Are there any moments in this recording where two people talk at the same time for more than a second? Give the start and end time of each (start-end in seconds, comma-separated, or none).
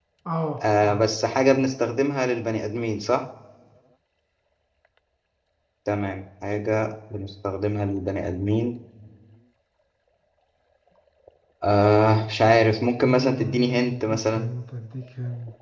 13.0-14.5